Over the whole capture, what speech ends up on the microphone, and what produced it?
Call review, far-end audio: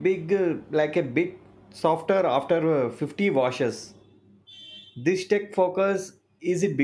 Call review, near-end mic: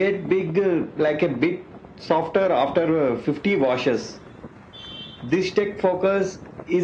echo only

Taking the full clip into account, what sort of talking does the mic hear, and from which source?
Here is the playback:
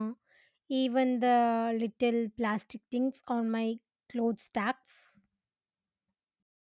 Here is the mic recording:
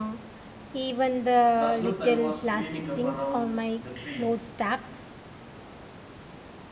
both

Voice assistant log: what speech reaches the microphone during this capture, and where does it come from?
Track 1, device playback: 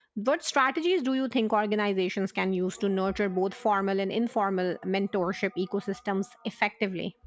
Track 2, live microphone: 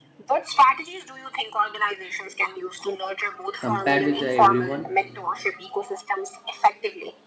both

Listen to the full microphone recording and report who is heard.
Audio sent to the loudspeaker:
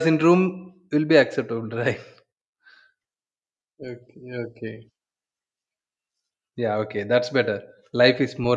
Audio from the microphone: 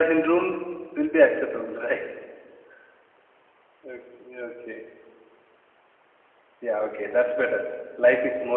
echo only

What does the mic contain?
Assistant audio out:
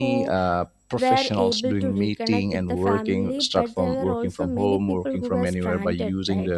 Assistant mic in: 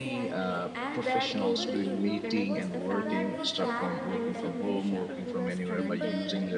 both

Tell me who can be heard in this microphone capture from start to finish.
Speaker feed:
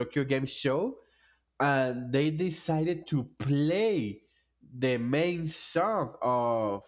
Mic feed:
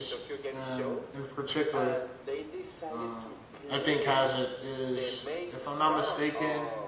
both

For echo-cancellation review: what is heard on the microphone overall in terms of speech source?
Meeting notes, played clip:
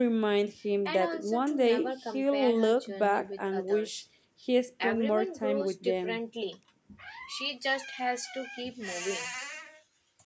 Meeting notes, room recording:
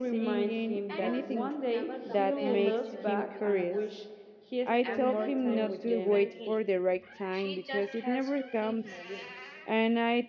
both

